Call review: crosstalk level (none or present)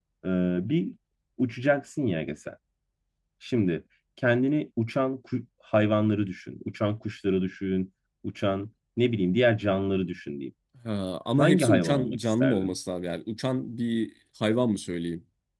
present